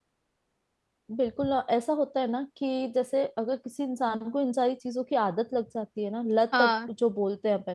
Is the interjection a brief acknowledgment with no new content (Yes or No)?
Yes